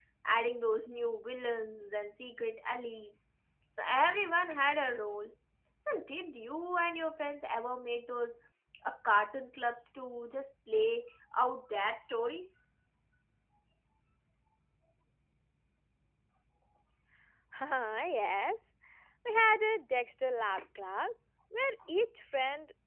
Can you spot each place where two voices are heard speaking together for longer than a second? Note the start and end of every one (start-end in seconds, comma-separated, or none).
none